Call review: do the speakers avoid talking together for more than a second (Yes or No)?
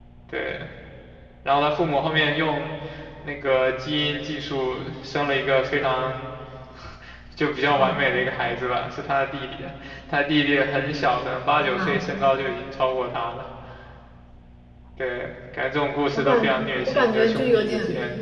No